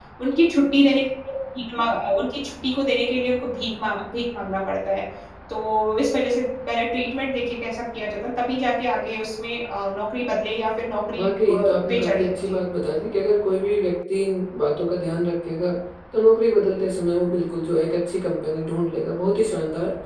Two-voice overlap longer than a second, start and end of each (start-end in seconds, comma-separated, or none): 11.2-12.6